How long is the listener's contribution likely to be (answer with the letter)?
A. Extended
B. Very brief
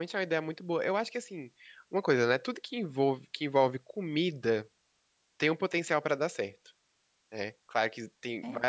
B